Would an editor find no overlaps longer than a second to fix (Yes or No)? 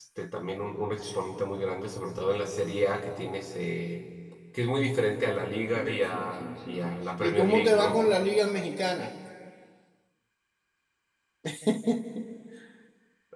No